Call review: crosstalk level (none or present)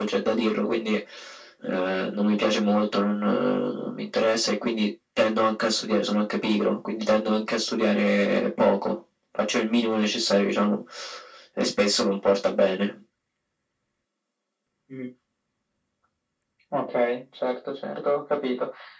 none